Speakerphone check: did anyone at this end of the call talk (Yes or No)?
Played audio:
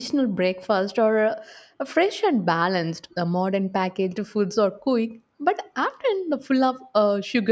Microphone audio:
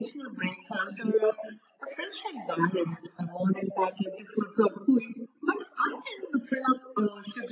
No